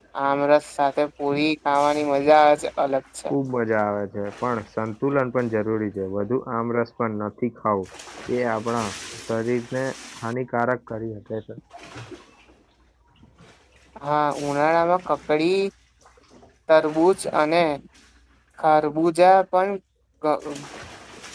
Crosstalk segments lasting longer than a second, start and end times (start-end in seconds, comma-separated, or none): none